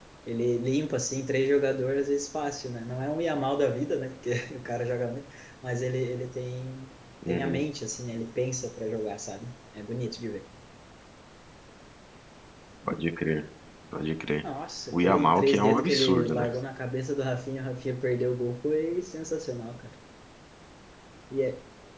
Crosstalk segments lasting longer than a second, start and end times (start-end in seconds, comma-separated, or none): 14.9-16.5